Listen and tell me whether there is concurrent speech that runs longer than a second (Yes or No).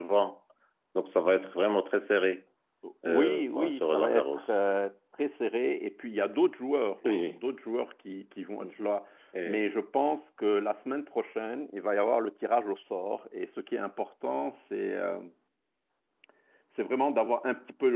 Yes